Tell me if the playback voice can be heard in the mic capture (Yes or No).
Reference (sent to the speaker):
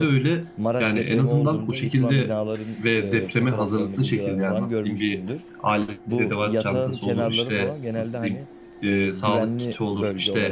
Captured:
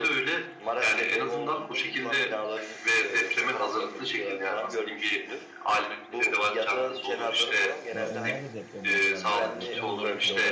Yes